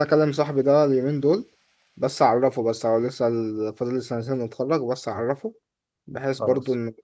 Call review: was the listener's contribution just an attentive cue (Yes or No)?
Yes